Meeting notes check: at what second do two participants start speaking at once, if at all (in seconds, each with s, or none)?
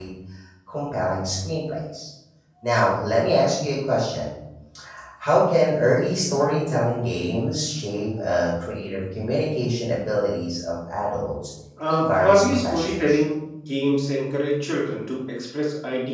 11.9 s